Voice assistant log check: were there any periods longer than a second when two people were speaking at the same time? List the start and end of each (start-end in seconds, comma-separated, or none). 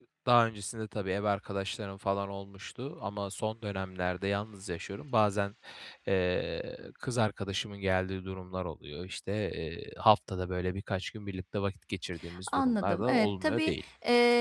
12.5-13.7